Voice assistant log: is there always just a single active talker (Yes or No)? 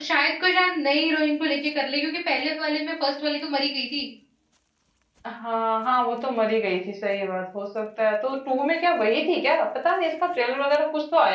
Yes